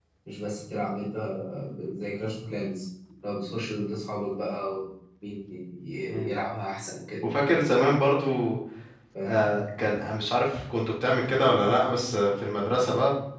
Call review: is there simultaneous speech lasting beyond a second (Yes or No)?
No